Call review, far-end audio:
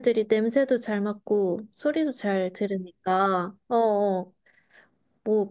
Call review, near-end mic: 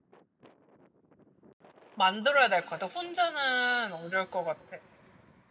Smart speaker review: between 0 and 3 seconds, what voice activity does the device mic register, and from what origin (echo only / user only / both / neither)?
user only